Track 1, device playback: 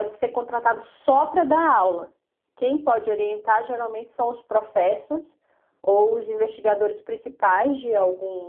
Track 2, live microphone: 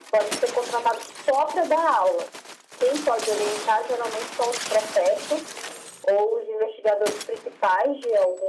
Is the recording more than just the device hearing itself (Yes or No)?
No